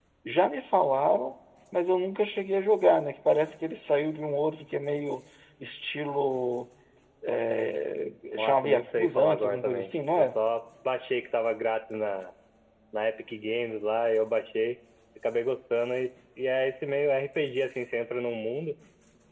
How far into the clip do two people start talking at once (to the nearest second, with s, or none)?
8 s